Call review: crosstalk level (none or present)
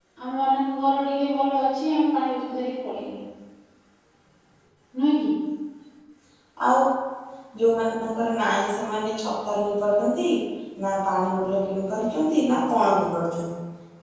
none